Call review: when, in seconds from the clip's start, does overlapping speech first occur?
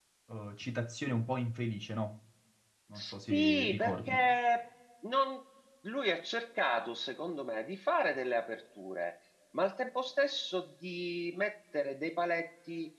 2.9 s

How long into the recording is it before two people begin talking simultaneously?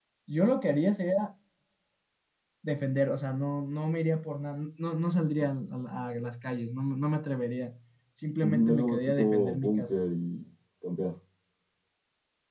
8.4 s

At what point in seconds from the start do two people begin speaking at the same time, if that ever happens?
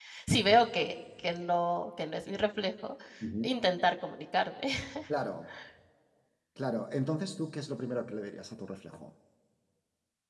none

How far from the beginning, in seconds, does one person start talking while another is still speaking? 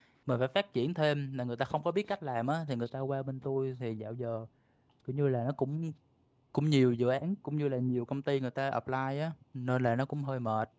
none

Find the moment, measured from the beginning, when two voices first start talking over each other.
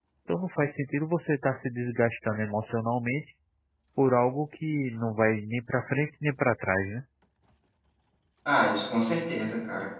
none

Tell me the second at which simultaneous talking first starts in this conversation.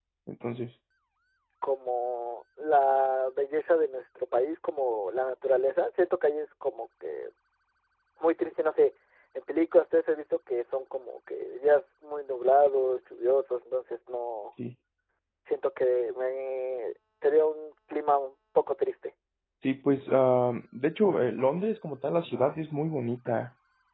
none

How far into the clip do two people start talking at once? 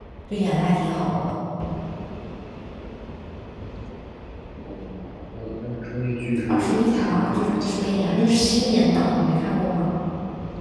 6.5 s

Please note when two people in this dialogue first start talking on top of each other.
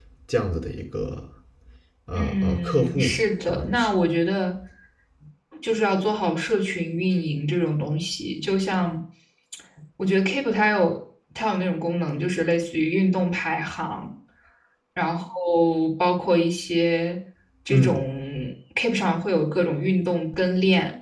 2.2 s

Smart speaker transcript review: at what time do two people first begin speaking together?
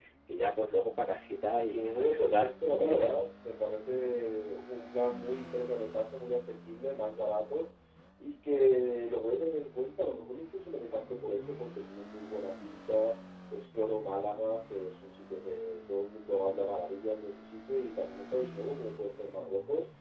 1.6 s

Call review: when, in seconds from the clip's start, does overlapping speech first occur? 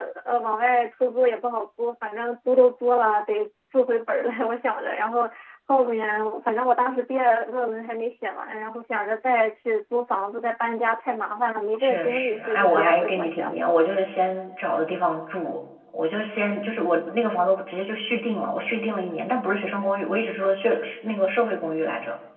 11.8 s

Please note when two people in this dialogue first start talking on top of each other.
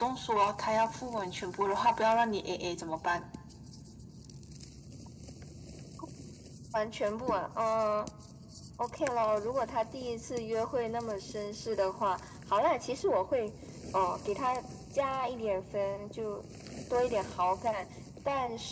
none

